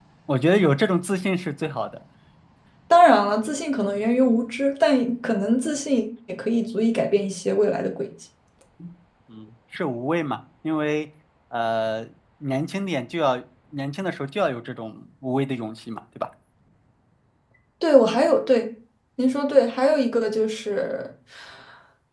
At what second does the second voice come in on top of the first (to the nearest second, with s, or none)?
none